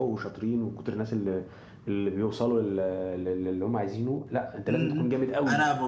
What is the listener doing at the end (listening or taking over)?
taking over